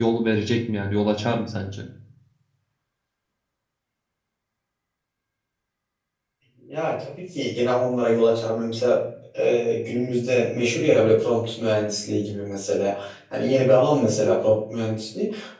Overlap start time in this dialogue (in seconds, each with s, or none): none